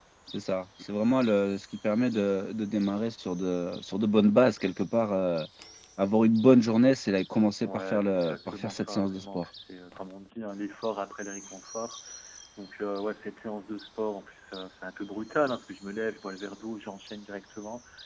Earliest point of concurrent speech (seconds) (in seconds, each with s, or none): 7.7 s